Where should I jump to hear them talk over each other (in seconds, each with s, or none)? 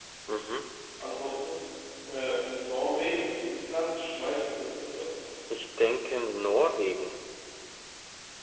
none